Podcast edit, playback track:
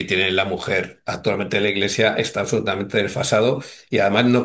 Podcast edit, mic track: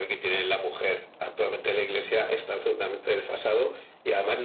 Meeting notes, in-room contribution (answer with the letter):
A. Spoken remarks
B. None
B